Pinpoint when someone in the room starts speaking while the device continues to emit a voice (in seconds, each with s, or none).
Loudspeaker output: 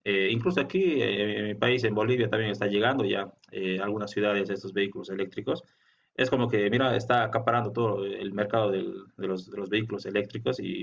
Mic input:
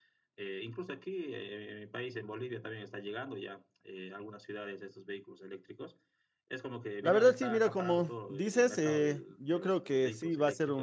7.0 s